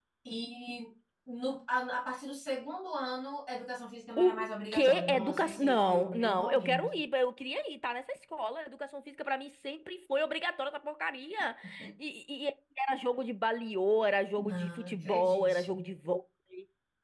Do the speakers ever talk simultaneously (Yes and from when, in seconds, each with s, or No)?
Yes, from 4.2 s